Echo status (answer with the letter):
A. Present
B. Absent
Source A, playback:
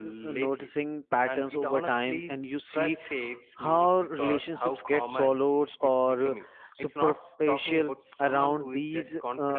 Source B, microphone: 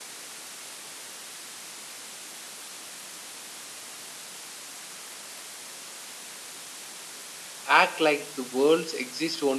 B